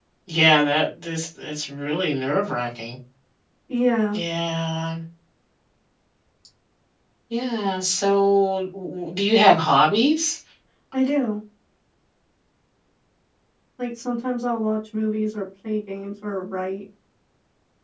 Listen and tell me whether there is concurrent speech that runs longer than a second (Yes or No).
No